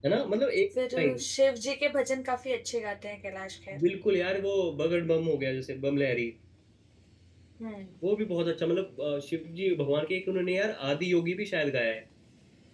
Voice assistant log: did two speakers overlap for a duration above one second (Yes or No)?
No